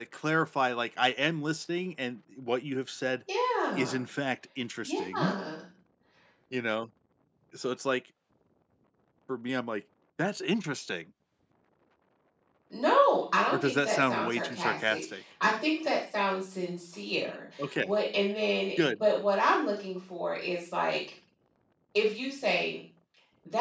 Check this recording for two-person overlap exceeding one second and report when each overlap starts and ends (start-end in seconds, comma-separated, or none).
13.5-15.2